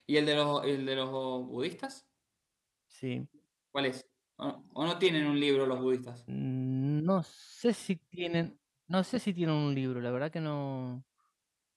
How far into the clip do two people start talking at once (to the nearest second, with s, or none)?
none